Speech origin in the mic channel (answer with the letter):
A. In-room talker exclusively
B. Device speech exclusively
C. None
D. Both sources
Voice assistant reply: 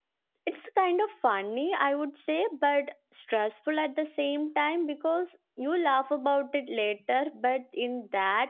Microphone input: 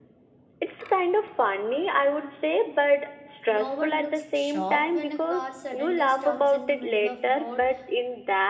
D